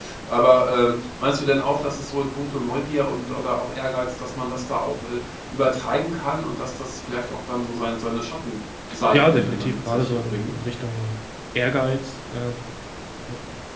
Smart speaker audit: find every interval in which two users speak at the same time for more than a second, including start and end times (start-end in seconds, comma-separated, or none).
9.1-10.6